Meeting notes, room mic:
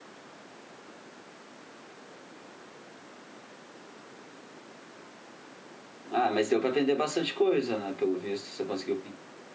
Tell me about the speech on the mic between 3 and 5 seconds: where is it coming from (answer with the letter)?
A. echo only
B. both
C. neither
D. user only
C